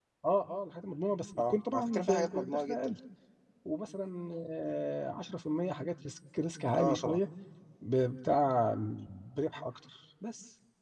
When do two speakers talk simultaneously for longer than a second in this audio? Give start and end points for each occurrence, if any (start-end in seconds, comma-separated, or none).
1.4-2.9